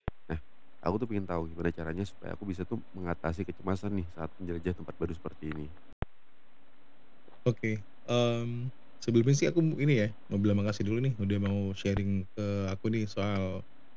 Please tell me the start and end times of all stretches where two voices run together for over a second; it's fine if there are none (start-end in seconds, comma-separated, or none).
none